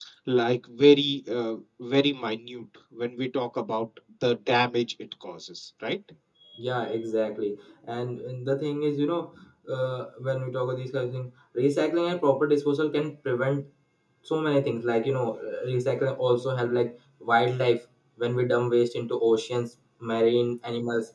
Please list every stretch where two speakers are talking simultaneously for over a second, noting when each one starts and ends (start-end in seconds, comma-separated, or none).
none